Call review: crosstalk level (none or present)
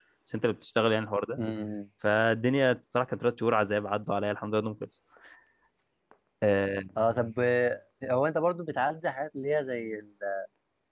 none